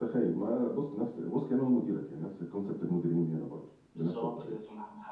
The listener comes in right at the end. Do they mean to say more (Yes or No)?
Yes